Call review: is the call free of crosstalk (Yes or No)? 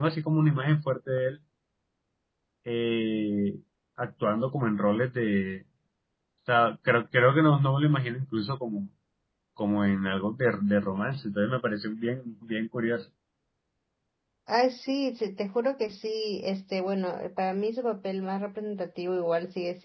Yes